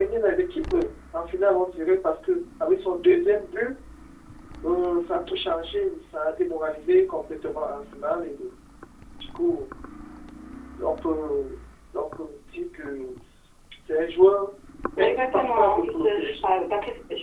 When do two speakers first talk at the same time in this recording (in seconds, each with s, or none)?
15.0 s